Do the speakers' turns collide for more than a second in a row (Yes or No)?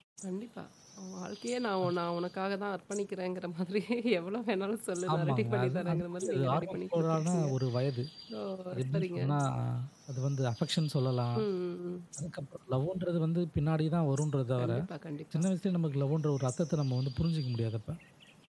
Yes